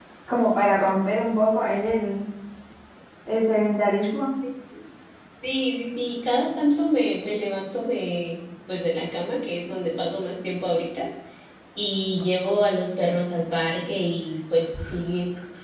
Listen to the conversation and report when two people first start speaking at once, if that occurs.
none

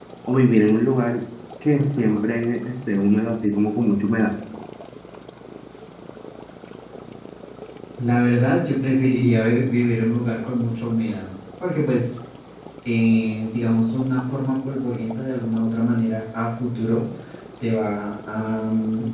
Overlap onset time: none

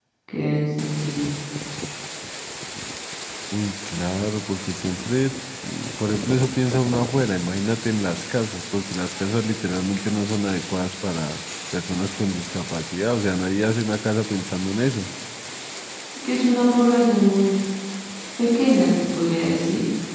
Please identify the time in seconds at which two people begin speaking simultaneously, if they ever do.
none

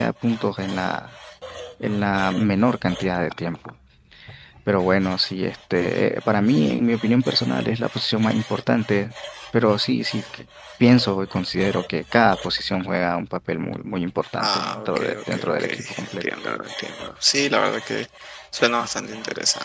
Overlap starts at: 14.4 s

